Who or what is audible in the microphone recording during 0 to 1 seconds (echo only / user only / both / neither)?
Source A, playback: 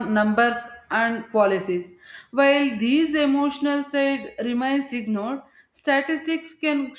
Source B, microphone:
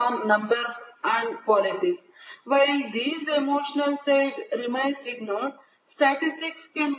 echo only